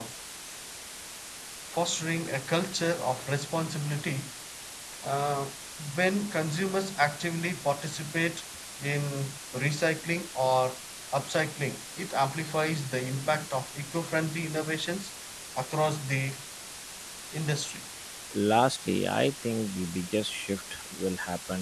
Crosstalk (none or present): none